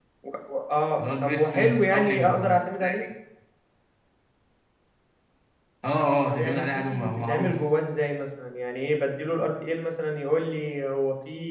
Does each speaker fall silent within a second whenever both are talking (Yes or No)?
No